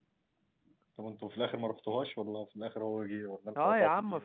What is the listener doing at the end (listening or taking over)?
taking over